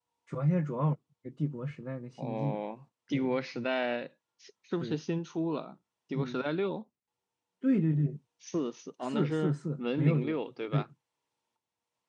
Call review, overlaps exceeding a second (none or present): present